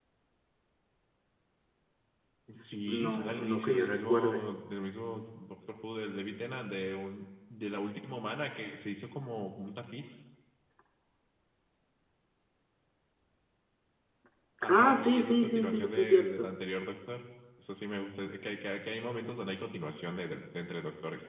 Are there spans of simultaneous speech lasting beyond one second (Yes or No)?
Yes